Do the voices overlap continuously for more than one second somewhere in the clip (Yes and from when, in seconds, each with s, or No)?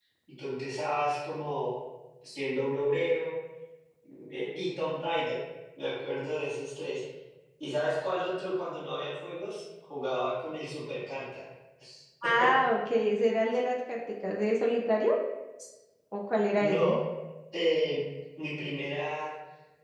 No